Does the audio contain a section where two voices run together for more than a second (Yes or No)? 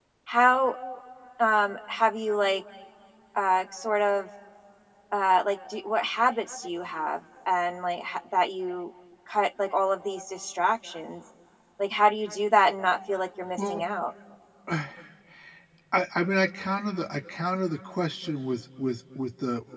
No